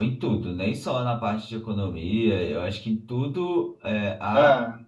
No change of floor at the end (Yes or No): Yes